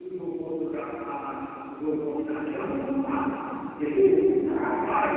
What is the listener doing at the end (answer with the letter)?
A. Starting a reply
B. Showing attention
A